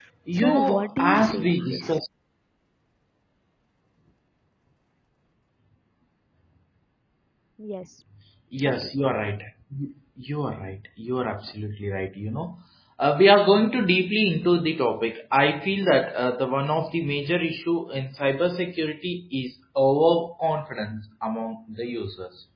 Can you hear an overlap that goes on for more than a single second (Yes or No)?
Yes